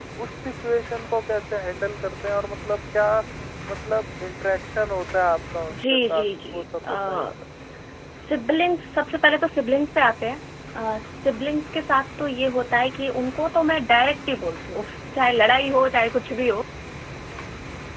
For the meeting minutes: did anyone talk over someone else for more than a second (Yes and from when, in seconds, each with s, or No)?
Yes, from 5.7 s